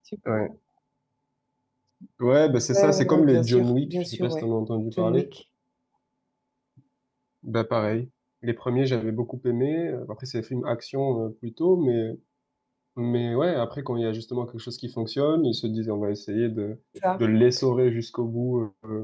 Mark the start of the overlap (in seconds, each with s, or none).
2.7 s